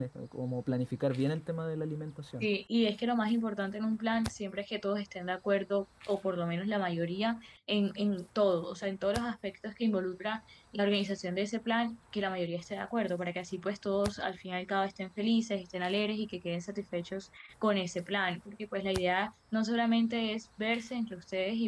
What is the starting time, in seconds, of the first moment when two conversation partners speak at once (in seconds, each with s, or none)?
none